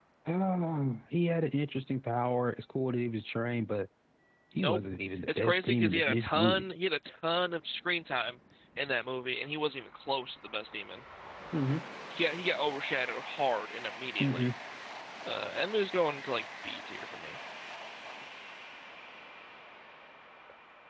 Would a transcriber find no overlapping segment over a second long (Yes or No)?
No